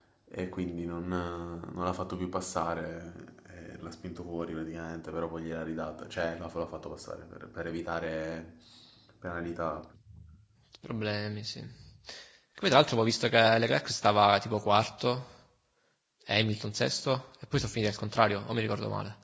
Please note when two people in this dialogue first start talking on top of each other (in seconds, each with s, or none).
none